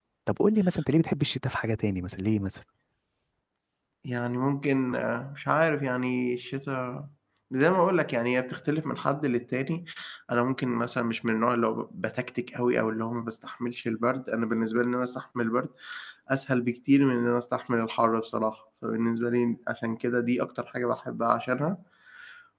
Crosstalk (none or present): none